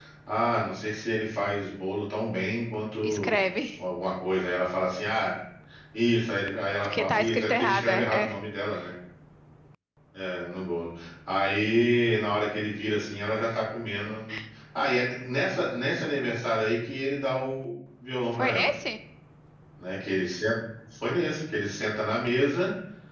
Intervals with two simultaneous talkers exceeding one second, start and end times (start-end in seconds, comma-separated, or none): 6.8-8.4